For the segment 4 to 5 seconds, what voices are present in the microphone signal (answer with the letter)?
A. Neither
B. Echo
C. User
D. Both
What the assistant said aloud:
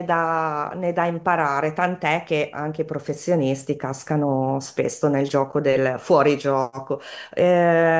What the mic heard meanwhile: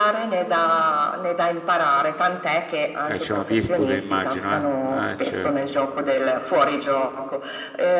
D